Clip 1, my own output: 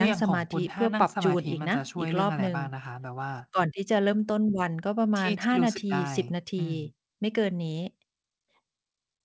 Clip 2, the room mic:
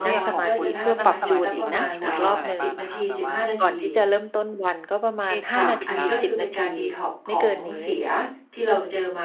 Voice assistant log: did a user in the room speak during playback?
Yes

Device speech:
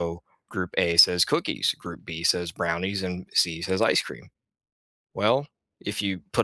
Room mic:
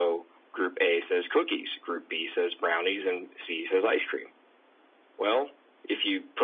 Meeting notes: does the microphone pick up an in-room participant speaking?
No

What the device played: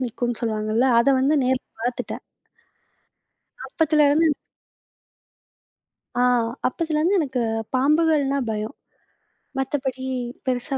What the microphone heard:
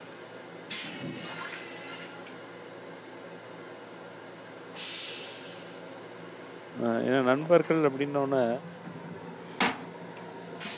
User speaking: Yes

